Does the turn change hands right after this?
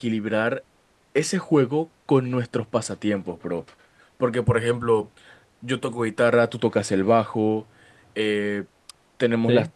No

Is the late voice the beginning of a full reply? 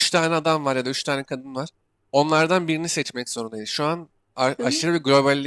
No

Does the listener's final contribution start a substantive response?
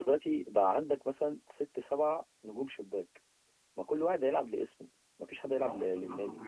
Yes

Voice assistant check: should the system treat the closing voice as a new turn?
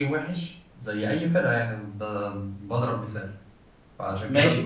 Yes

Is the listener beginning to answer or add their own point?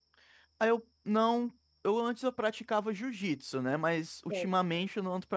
No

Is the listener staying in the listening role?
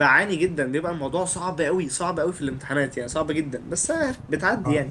No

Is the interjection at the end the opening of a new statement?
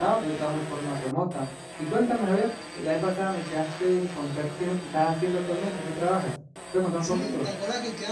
Yes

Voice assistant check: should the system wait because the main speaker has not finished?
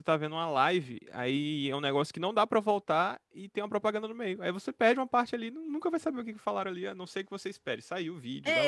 No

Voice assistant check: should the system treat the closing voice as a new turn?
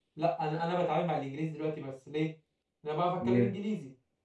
No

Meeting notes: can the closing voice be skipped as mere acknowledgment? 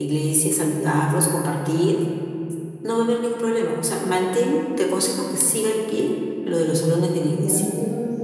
No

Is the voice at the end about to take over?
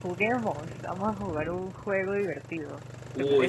Yes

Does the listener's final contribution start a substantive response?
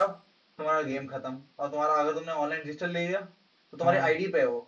No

